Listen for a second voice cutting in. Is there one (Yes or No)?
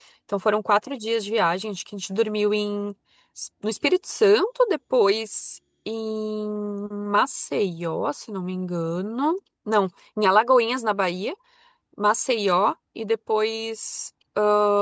No